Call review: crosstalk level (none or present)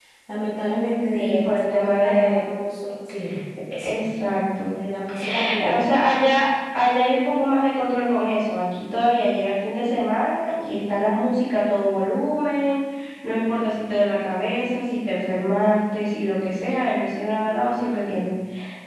present